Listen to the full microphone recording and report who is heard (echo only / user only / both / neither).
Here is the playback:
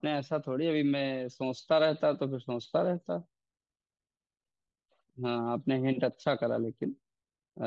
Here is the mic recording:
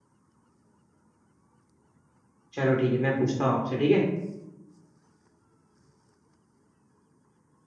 user only